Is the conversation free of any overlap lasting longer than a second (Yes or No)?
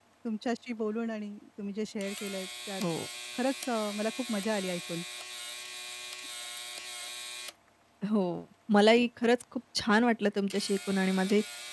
Yes